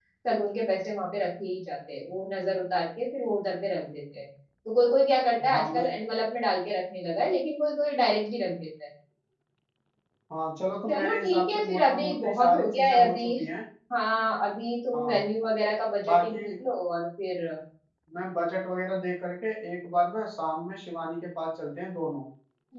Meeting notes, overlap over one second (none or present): present